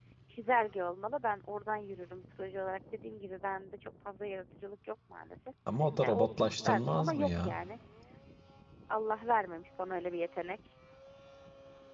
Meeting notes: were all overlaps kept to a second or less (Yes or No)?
No